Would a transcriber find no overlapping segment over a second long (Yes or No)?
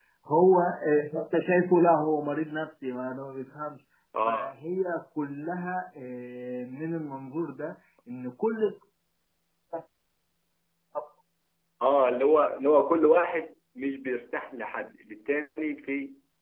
Yes